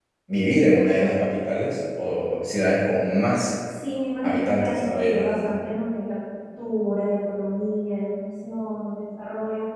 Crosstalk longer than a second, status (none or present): present